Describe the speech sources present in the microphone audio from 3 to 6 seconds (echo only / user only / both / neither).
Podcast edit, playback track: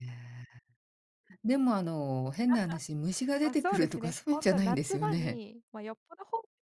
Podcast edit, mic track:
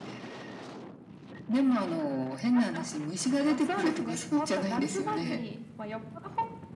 echo only